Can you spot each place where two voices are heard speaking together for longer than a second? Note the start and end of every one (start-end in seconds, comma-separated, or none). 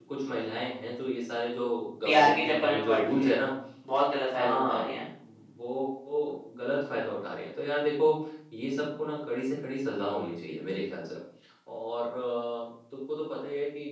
2.0-3.4